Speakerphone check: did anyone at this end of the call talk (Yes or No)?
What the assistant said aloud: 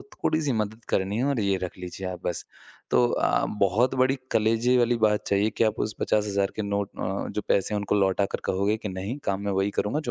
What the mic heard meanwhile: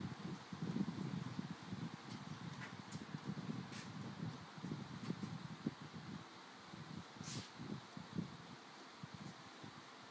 No